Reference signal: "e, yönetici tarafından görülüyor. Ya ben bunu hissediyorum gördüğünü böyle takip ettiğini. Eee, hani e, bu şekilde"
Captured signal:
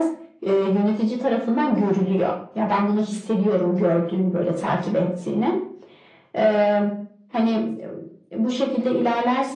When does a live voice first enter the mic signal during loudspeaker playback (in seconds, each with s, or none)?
none